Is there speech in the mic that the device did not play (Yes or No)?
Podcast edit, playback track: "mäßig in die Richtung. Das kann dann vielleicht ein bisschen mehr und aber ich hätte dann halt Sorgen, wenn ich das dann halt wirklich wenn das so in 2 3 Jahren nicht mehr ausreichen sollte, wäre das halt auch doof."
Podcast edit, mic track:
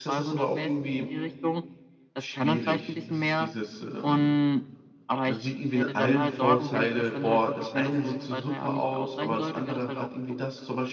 Yes